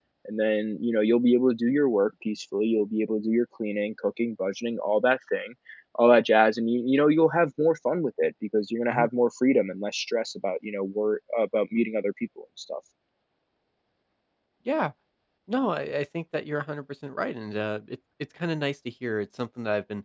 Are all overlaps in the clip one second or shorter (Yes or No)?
Yes